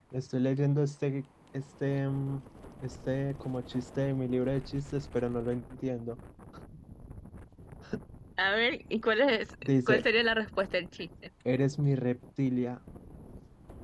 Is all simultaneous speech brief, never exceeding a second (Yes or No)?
Yes